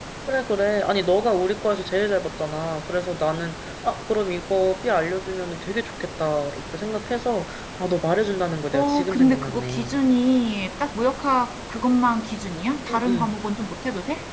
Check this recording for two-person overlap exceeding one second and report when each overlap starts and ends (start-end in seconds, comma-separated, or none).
8.7-10.0